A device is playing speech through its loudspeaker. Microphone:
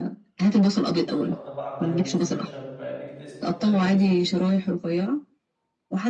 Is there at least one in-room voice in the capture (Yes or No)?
Yes